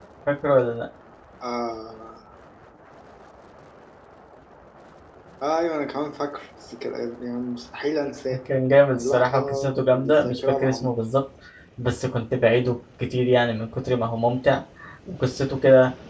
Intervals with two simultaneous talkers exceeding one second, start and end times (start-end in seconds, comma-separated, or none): 8.9-11.0